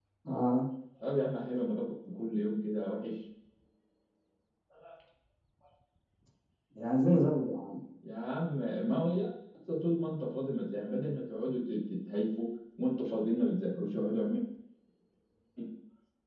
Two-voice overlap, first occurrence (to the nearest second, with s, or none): none